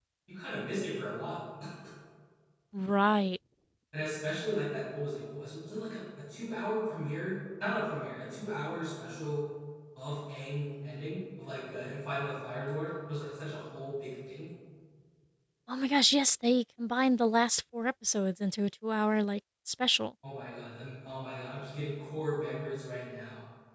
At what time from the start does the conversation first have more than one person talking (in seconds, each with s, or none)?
none